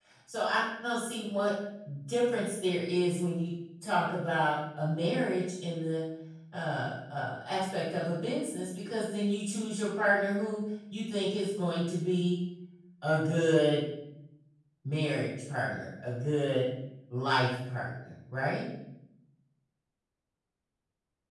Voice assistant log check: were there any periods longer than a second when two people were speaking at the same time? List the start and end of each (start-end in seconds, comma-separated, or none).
none